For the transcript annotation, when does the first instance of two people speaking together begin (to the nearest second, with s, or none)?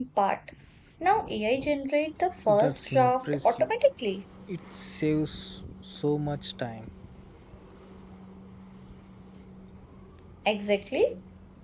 2 s